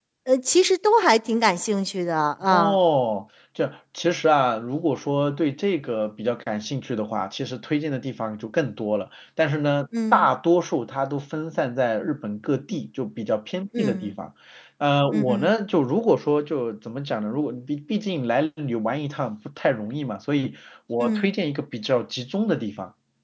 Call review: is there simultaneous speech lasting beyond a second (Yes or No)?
No